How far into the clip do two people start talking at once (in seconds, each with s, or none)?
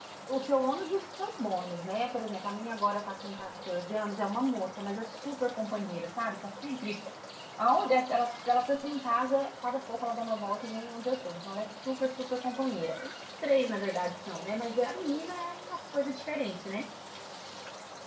none